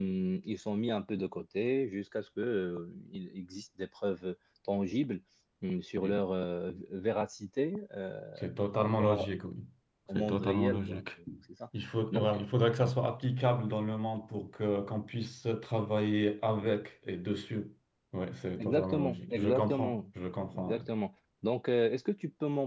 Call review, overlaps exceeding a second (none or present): present